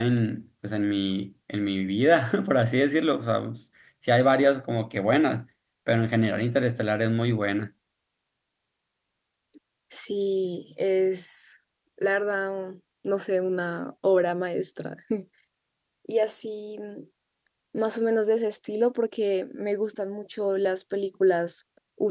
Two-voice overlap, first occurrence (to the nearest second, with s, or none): none